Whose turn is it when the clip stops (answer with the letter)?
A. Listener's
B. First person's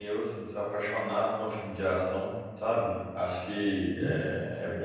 B